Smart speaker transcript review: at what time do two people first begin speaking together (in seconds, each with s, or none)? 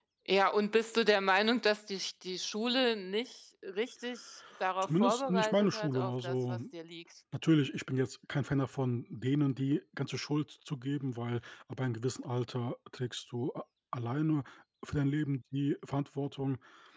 4.8 s